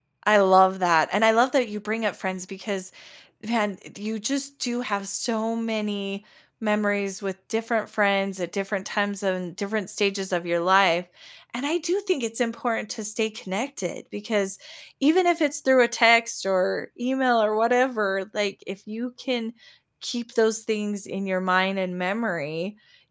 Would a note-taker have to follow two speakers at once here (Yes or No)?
No